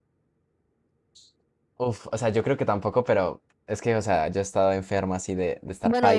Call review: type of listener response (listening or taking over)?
taking over